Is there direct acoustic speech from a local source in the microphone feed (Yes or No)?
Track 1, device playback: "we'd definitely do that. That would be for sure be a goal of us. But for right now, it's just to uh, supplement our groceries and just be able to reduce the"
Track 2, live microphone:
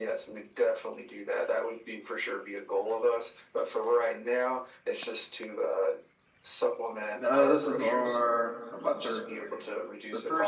Yes